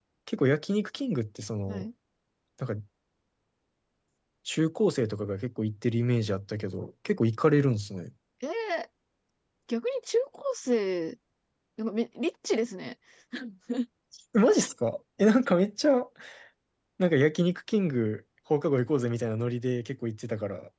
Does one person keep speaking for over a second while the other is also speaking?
No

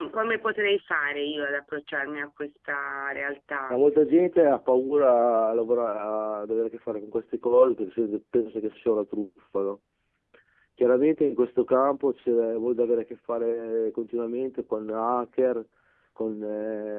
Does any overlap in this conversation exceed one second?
No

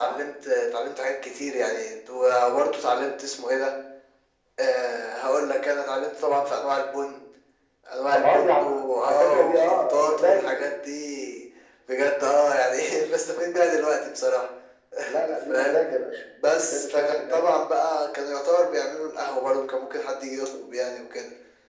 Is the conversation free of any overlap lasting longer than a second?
No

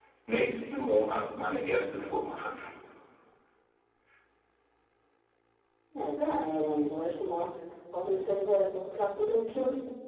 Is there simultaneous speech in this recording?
No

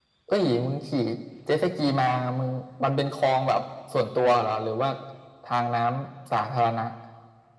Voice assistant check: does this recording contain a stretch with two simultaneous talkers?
No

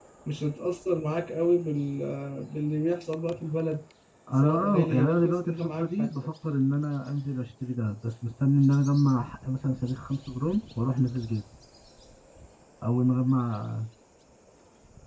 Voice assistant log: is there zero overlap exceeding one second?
No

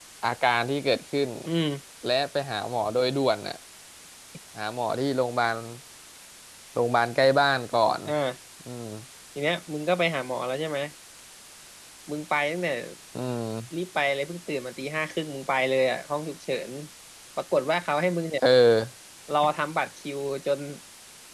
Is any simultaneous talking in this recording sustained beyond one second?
No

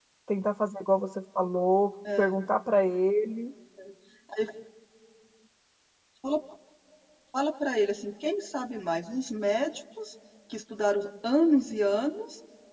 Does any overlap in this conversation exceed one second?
No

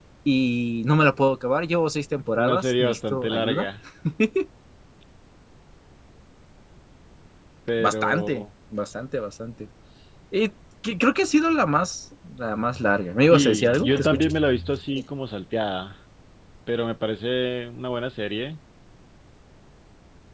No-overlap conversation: No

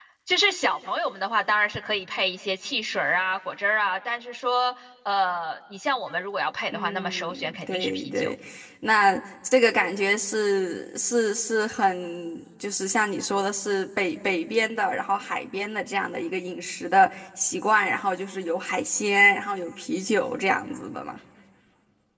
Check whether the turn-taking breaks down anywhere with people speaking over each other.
Yes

